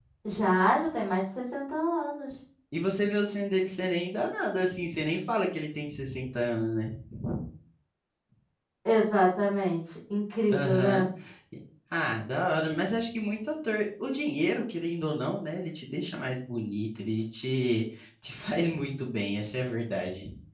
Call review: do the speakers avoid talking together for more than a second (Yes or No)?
Yes